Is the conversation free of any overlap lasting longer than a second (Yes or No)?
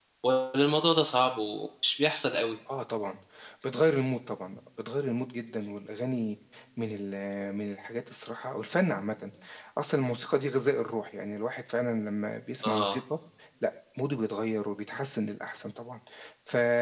Yes